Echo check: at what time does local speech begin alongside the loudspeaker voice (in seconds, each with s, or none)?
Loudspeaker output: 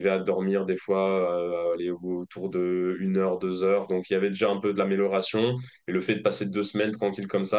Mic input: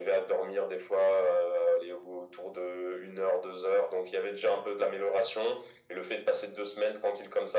none